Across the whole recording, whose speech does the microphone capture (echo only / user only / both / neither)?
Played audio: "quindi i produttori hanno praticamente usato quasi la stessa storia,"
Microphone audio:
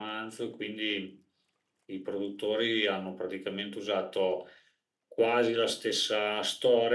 echo only